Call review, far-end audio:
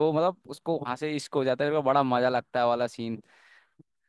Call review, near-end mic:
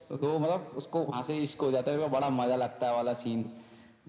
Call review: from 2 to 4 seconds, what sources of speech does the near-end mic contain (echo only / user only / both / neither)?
echo only